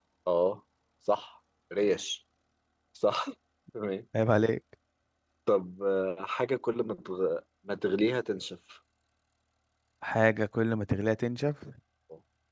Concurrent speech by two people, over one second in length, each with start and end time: none

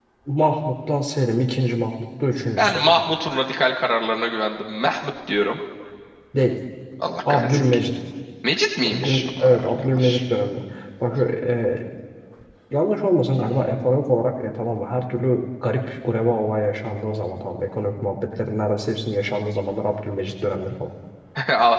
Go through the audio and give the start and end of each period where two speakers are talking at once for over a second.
8.9-10.2

